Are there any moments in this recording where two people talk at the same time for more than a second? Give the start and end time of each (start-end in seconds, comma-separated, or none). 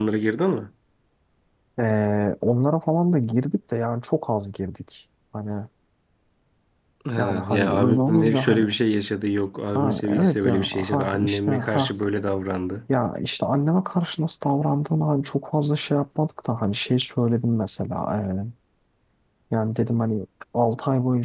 7.2-8.7, 9.7-11.9